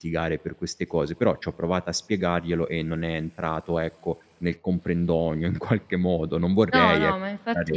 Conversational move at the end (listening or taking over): taking over